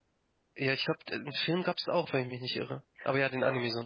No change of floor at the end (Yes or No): No